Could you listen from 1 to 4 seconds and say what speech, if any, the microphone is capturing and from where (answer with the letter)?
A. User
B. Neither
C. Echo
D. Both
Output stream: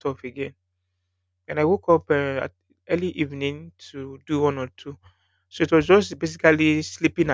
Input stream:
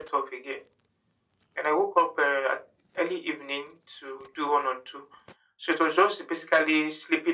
C